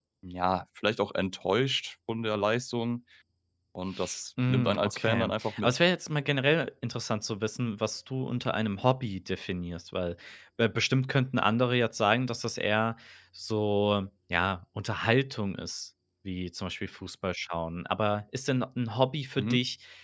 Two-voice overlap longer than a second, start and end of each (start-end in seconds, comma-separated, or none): 4.5-5.8